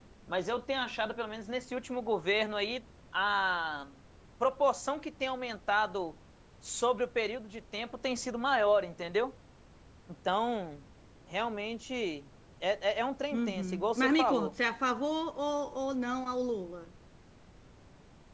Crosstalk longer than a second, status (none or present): present